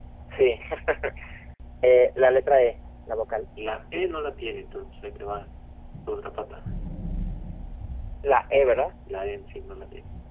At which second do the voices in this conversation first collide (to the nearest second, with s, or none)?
none